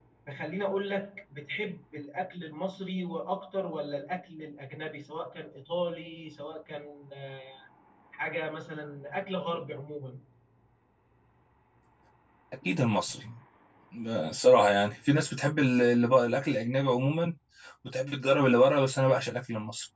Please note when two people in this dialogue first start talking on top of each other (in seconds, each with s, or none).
none